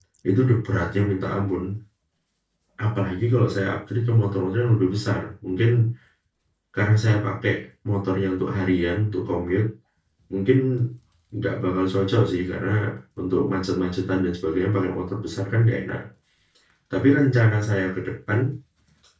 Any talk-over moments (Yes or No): No